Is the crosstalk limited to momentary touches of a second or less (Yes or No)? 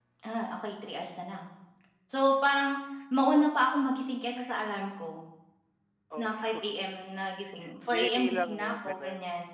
No